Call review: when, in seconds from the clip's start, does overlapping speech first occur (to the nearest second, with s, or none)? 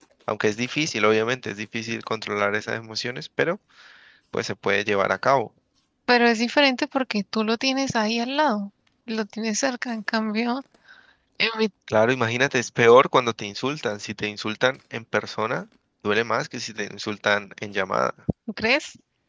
none